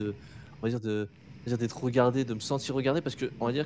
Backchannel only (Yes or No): Yes